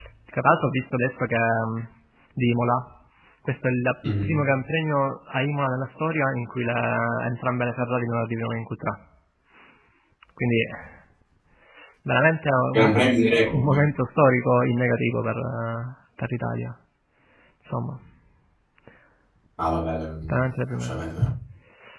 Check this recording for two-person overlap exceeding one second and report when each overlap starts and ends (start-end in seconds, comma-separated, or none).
none